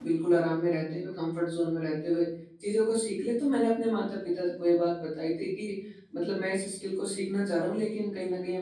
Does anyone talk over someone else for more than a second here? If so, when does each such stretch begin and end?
none

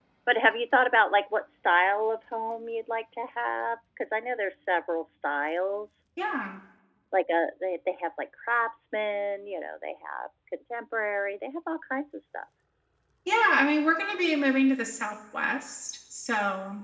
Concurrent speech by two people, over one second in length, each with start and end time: none

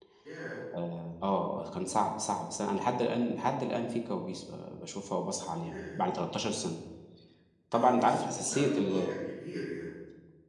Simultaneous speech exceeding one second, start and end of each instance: 7.7-9.1

